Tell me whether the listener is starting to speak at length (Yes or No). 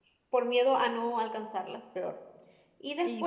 No